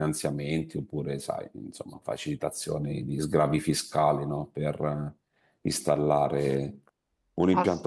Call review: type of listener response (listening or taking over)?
listening